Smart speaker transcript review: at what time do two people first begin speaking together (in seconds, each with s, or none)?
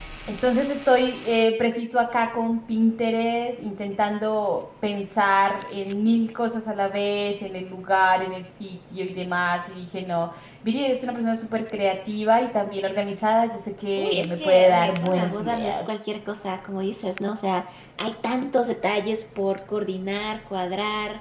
14.0 s